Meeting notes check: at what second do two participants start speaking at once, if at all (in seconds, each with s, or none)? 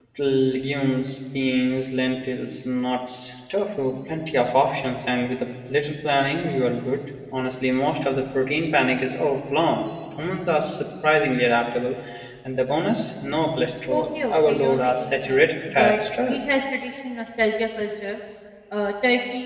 13.9 s